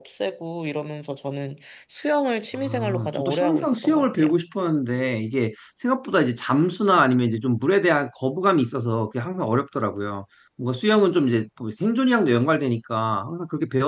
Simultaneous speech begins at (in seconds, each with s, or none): 2.5 s